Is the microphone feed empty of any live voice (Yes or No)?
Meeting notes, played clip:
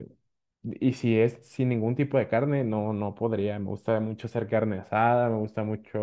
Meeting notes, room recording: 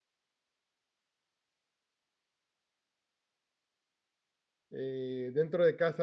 No